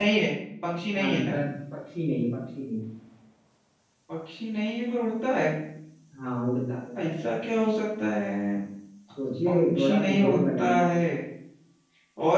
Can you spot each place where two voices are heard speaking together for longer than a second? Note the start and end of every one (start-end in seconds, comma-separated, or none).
9.4-10.9